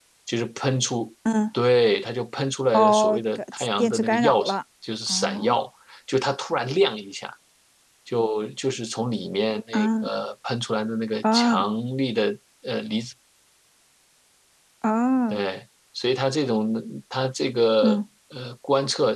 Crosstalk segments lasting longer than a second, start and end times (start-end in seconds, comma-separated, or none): 2.7-4.4